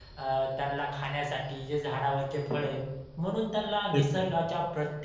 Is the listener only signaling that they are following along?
Yes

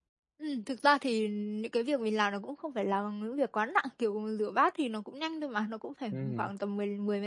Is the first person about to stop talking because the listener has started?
No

